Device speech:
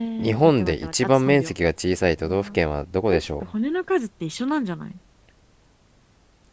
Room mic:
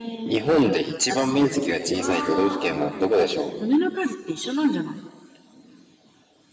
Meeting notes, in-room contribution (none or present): present